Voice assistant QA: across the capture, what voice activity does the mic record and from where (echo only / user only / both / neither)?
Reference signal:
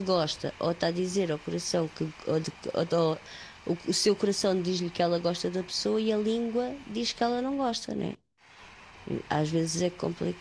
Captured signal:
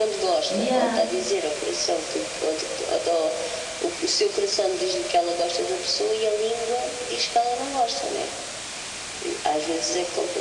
both